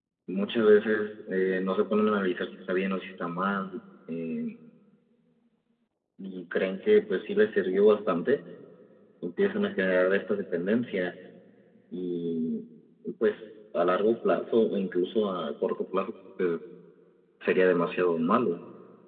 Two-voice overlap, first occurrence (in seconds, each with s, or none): none